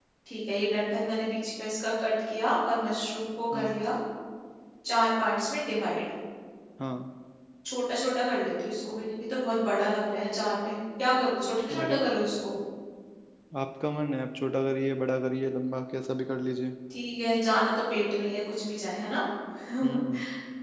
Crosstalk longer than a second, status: none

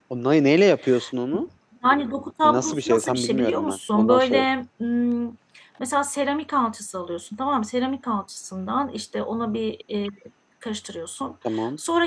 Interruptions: present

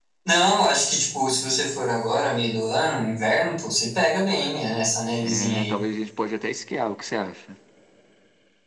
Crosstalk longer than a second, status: none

